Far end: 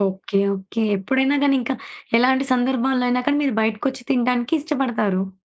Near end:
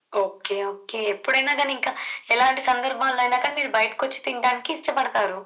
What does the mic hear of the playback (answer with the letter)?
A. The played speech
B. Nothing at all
A